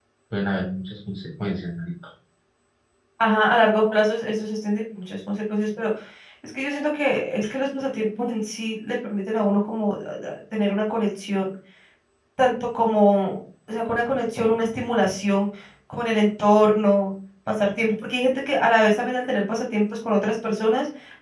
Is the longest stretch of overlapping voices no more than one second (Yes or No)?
Yes